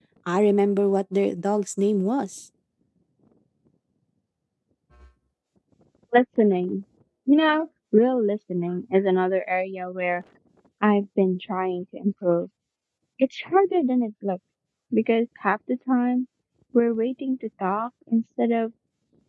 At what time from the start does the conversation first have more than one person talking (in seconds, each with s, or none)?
none